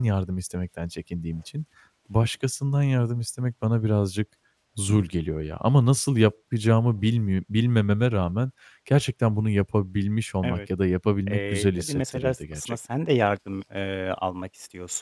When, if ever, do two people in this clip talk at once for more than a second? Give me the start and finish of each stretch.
11.3-12.8

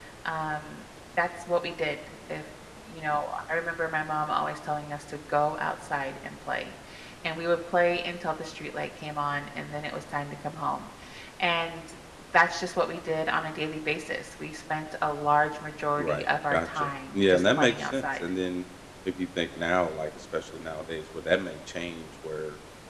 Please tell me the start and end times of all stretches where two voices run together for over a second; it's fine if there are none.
16.0-18.2

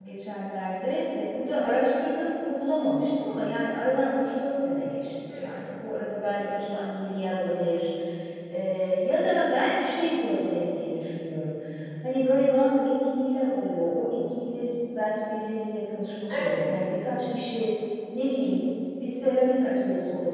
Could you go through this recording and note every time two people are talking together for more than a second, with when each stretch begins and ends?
none

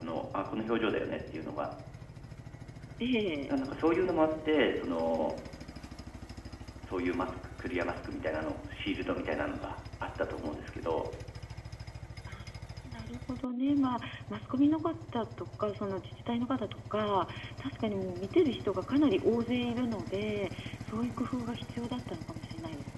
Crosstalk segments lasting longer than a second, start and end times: none

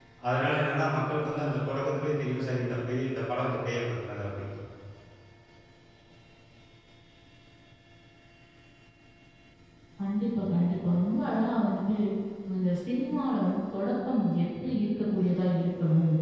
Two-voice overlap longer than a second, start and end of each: none

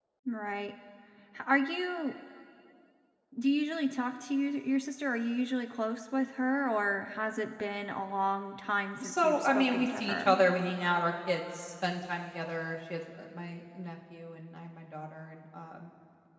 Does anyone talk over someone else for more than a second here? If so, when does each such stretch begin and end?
9.0-10.3

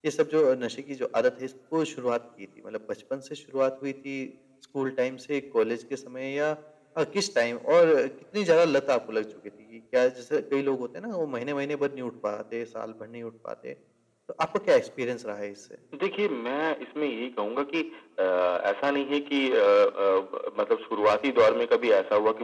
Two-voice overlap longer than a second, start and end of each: none

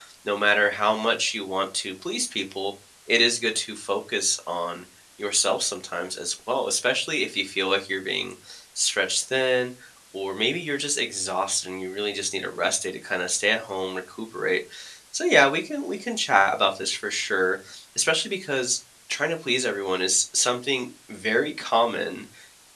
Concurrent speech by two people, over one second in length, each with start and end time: none

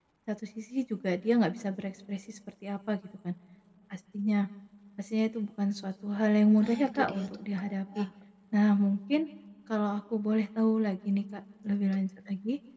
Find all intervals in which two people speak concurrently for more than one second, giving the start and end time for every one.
6.6-8.1

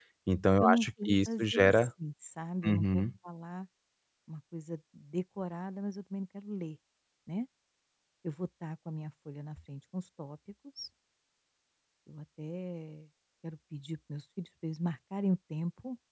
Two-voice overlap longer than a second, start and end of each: 0.6-1.9

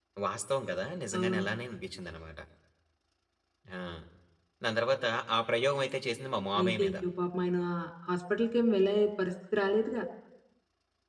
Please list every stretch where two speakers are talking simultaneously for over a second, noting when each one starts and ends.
none

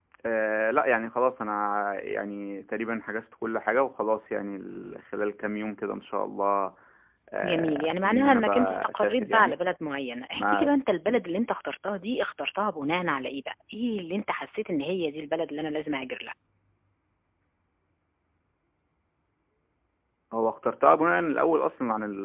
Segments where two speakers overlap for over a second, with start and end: 7.4-9.6

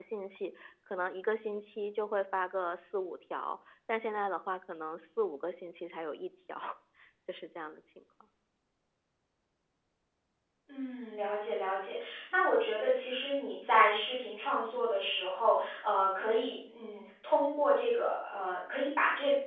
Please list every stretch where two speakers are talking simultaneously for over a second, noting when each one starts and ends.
none

